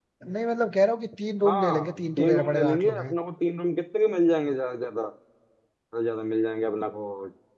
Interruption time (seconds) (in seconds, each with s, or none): 1.4 s